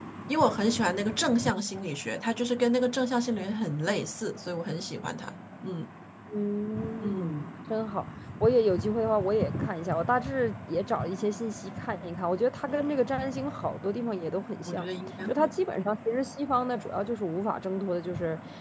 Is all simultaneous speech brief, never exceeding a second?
Yes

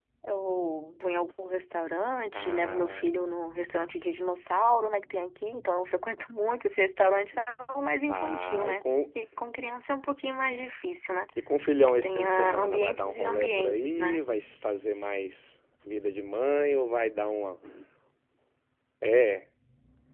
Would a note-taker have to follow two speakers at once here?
Yes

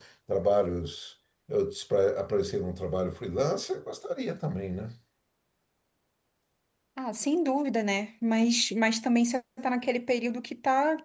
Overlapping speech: No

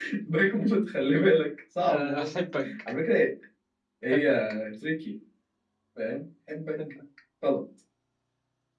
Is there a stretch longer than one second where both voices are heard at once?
No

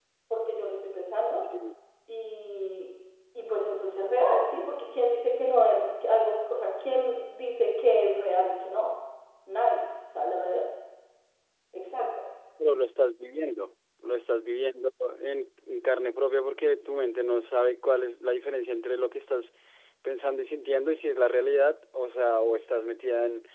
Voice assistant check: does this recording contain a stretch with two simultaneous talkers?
No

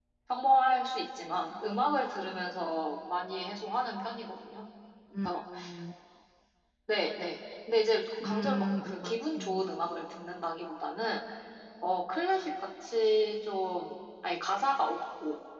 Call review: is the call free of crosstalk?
No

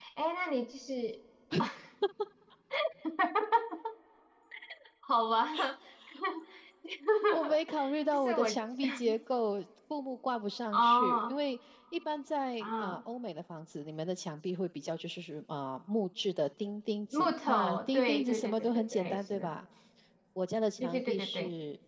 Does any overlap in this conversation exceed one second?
Yes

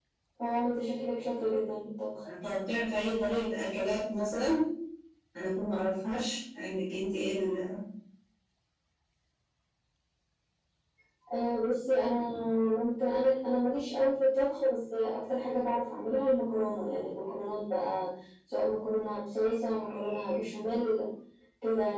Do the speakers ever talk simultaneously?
No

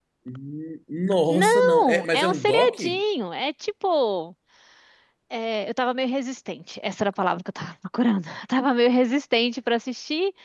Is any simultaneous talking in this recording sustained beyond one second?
Yes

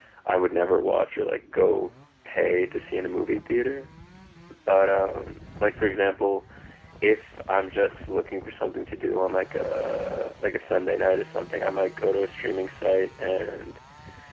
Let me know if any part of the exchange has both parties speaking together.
No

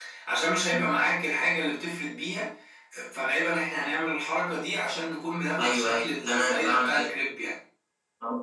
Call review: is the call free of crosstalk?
No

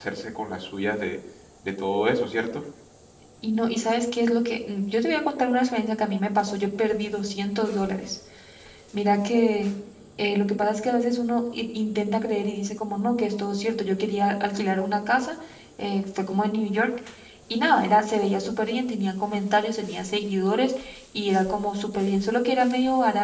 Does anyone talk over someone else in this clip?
No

